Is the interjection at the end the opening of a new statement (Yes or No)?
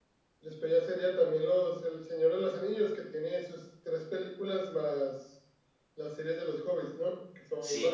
Yes